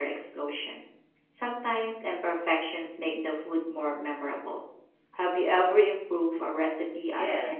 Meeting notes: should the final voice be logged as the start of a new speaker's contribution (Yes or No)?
Yes